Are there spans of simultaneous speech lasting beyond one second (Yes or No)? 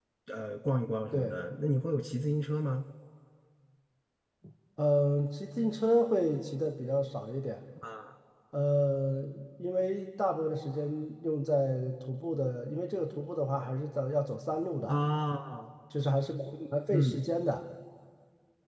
No